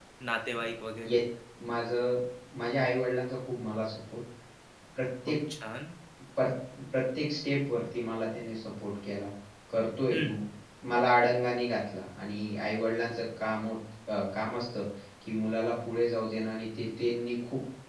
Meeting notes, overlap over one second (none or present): none